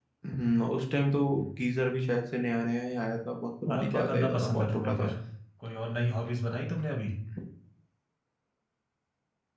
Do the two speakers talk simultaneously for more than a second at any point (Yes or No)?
Yes